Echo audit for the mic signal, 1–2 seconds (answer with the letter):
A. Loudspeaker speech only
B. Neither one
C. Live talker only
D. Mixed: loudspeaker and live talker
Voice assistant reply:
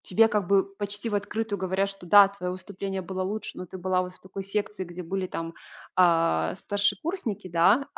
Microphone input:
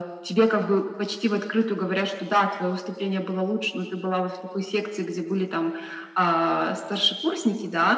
A